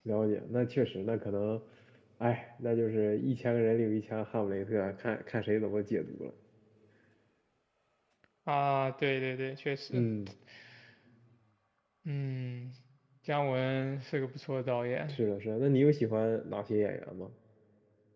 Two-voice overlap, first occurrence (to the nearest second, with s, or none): none